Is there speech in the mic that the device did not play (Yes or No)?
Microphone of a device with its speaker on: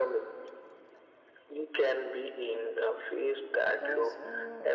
Yes